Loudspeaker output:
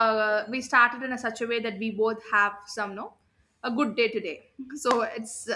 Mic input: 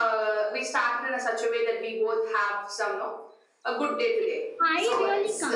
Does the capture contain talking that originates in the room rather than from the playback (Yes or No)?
Yes